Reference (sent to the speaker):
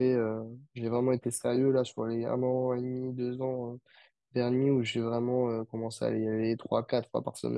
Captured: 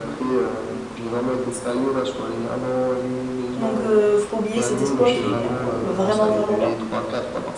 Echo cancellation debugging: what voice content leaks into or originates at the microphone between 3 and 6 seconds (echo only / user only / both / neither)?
both